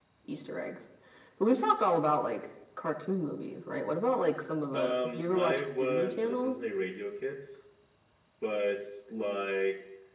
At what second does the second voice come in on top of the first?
4.7 s

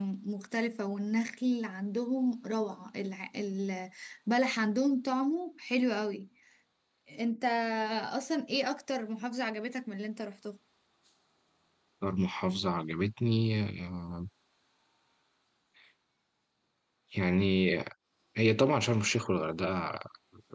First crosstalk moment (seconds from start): none

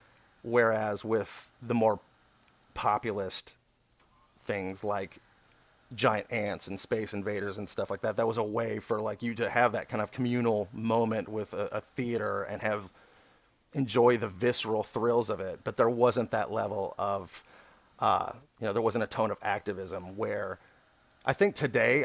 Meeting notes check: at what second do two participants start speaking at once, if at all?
none

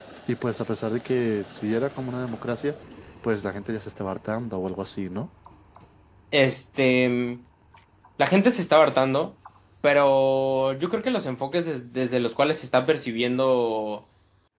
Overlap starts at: none

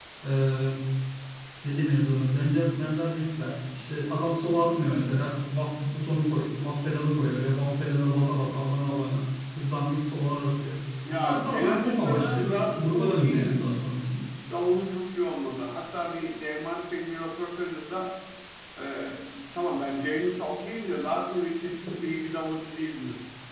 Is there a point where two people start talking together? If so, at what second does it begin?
11.1 s

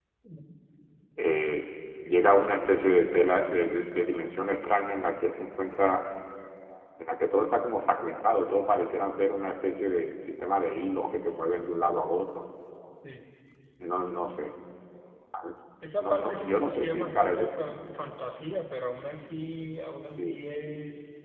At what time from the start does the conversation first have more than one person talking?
16.0 s

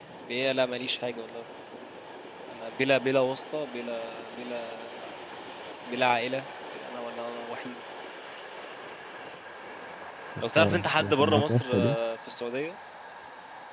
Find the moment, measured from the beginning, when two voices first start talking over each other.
10.6 s

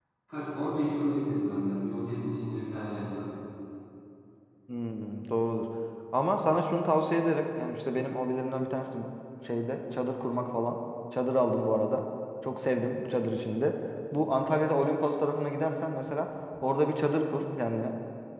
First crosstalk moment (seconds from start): none

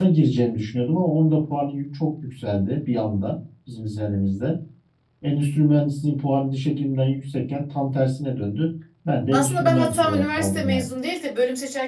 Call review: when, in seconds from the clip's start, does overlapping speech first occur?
9.3 s

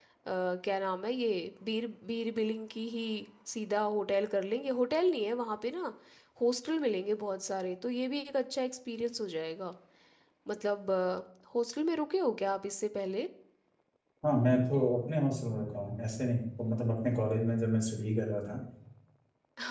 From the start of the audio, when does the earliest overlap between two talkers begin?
none

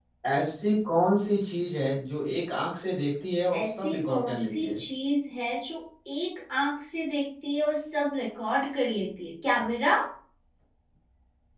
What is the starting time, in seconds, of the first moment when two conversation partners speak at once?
3.5 s

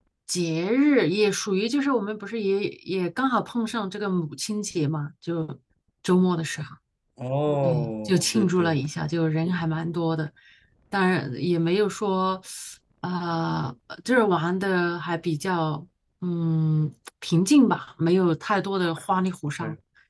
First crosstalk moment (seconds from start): 7.6 s

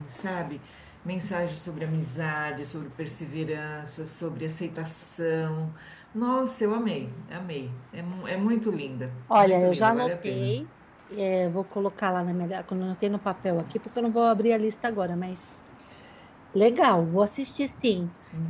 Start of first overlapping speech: 9.3 s

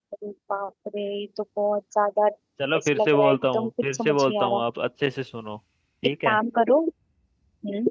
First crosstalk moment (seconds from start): 2.8 s

